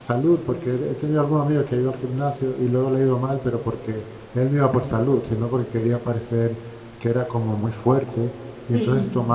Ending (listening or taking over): listening